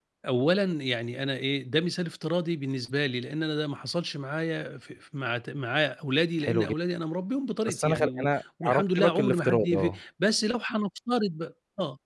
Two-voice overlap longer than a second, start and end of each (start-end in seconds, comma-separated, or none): 7.7-10.0